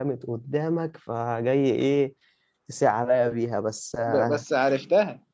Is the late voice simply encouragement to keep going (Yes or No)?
No